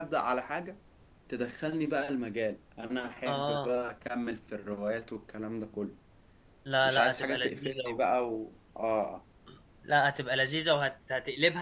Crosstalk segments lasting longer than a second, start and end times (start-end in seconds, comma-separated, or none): 6.8-8.0